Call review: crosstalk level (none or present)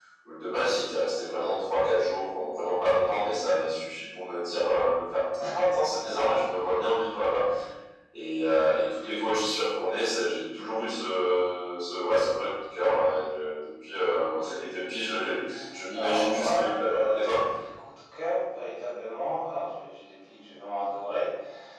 present